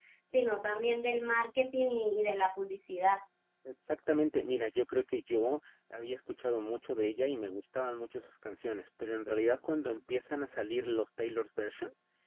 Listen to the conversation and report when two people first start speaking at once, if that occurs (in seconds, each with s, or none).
none